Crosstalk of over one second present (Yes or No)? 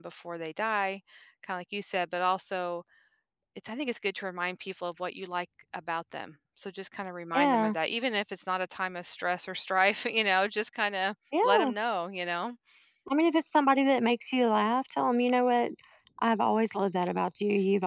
No